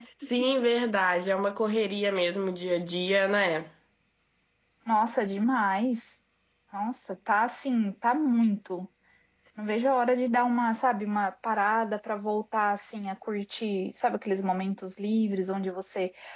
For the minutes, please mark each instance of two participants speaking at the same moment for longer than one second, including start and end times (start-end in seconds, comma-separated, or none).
none